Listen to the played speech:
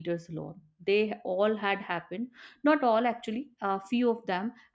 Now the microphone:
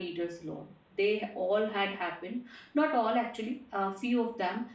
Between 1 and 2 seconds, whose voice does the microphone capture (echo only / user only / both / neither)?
echo only